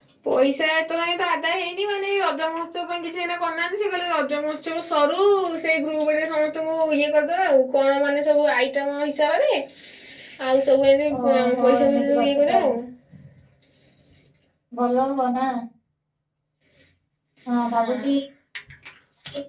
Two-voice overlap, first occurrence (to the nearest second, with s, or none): 11 s